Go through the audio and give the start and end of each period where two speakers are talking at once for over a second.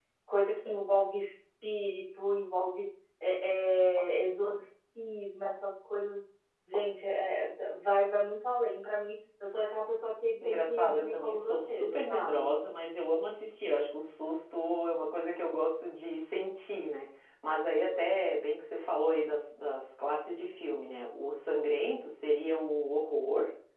10.4-12.5

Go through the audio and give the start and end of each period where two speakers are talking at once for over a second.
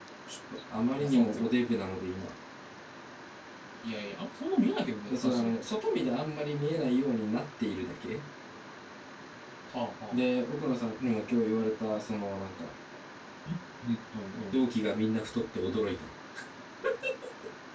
none

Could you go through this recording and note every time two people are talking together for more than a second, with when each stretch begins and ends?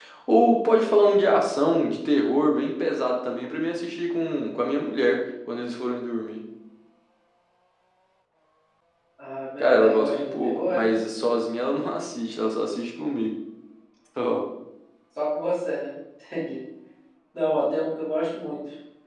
9.6-10.9

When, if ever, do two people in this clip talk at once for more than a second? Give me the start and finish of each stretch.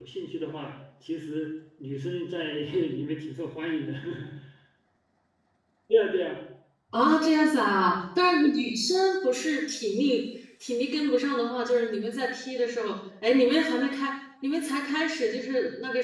none

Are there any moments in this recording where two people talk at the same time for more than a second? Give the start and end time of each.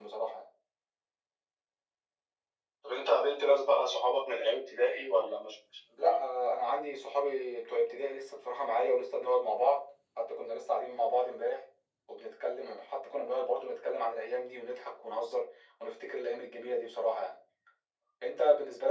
none

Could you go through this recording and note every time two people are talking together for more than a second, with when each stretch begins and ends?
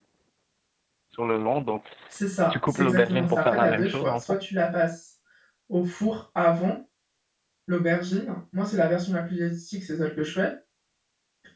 2.5-4.2

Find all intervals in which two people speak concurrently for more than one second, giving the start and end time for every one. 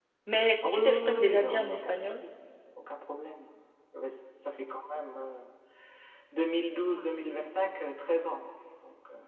0.7-2.2

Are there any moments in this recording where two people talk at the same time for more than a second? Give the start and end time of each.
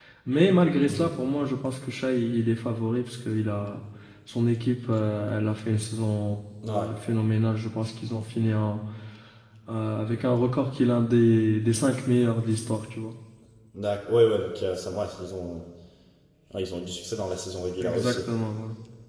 none

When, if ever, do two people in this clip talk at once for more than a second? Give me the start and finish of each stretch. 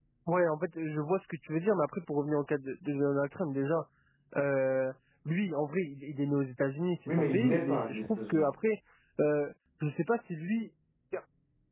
7.1-8.5

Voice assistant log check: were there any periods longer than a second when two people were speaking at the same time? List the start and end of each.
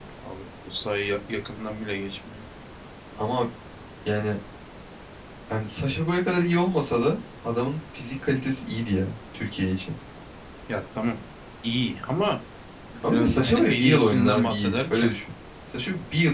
13.0-15.1

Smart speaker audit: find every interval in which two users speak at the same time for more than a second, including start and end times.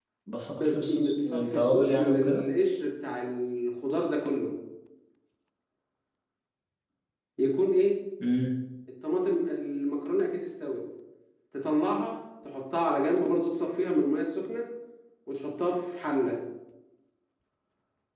0.6-2.4

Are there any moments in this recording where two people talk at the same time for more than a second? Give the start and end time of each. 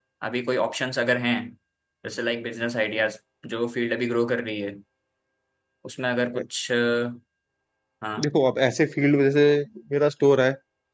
none

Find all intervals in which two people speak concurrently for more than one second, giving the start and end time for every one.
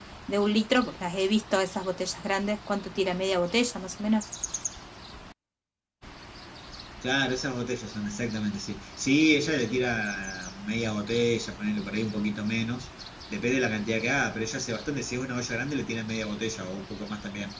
none

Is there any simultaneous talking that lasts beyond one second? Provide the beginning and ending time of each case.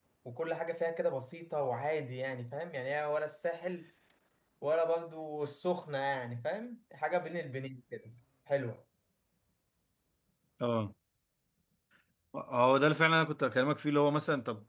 none

